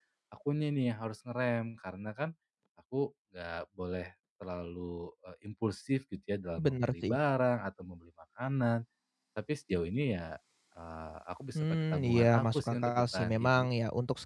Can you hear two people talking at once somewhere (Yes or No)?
Yes